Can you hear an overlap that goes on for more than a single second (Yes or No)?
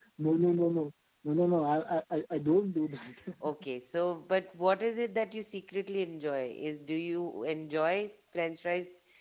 No